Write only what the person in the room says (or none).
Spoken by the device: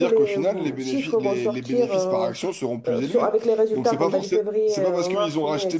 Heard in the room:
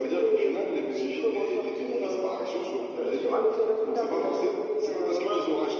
none